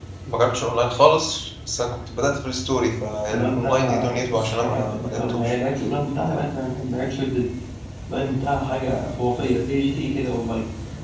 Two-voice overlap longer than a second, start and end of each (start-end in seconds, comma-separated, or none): 3.3-5.5